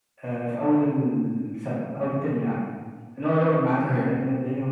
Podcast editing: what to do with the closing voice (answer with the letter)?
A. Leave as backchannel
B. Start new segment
A